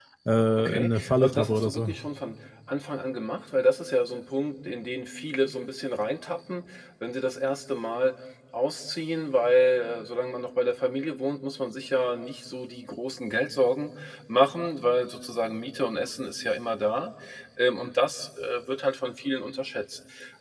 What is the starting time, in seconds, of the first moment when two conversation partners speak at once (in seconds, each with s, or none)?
0.6 s